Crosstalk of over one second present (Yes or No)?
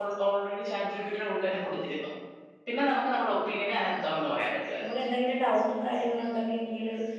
No